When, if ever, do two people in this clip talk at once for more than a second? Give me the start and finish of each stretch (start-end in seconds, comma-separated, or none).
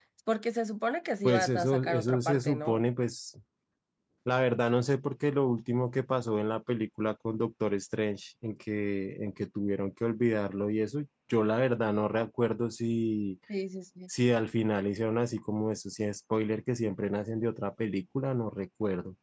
1.2-2.8